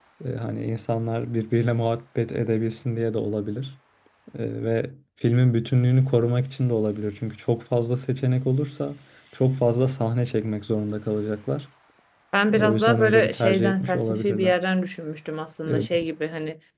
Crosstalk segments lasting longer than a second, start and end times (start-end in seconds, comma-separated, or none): 12.5-14.6